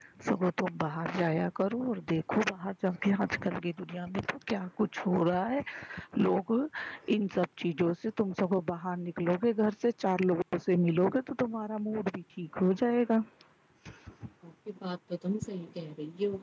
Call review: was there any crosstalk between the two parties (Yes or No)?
No